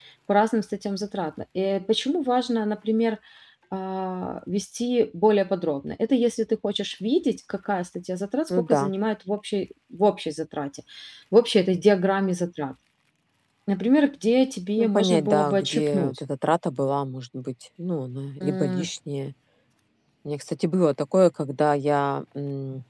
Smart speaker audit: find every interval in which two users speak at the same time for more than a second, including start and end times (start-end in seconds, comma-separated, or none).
14.8-16.2